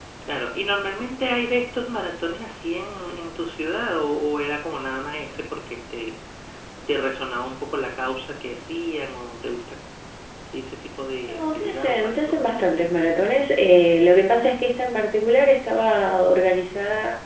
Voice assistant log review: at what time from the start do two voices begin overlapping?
11.3 s

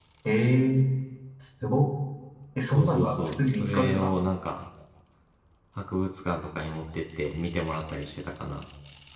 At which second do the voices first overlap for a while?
2.7 s

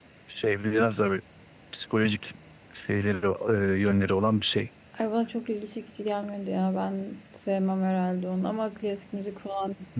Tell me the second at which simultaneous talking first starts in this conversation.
none

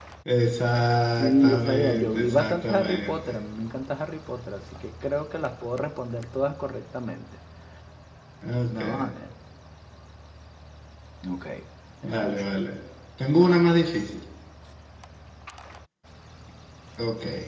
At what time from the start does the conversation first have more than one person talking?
1.2 s

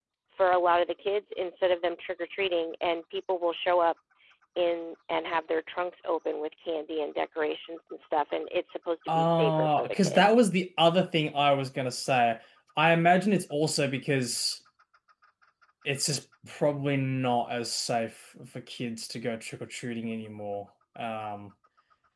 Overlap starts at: 9.1 s

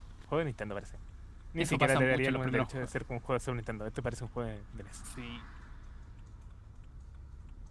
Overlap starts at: 1.6 s

